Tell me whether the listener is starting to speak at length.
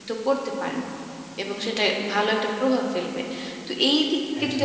No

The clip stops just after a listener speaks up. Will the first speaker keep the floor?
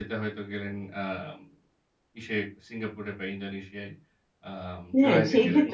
No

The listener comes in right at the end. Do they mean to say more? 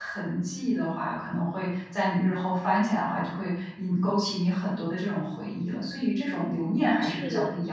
Yes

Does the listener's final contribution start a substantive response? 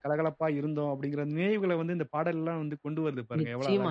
Yes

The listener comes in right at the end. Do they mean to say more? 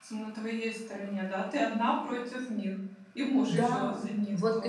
Yes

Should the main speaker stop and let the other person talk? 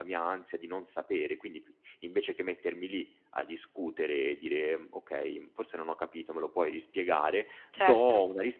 No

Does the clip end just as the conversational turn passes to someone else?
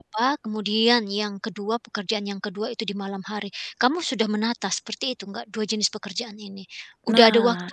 Yes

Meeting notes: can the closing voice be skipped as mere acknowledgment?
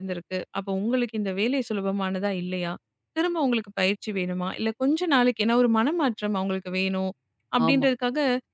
Yes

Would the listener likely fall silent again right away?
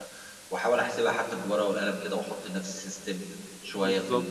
Yes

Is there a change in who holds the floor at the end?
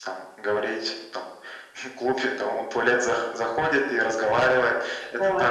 No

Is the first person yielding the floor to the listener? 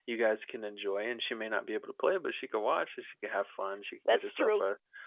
No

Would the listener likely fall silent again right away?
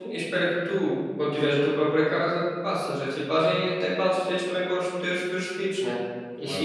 Yes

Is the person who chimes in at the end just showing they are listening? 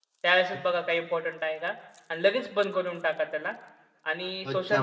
No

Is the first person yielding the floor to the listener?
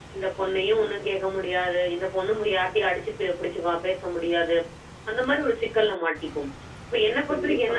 No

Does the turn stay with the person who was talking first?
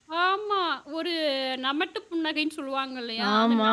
Yes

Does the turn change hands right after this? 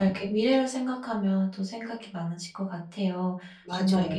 No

